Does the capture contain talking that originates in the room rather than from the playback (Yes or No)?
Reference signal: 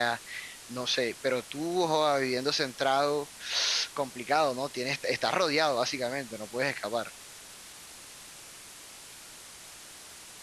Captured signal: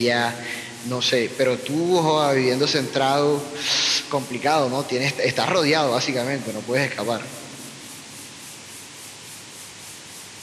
No